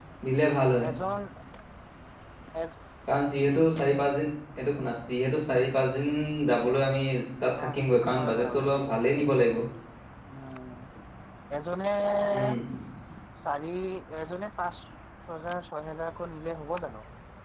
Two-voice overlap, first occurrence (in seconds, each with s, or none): 7.6 s